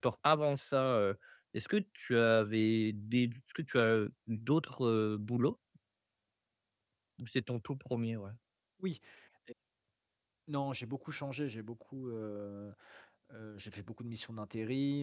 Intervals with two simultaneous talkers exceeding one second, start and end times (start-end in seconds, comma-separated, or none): none